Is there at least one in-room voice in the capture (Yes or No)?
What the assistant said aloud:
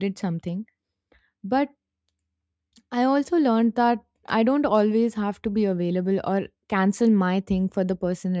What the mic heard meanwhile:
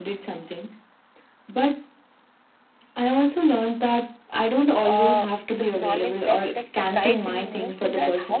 Yes